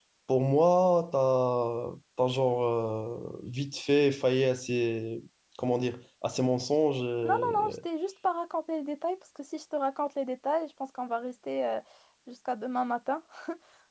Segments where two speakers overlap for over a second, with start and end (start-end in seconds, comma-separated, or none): none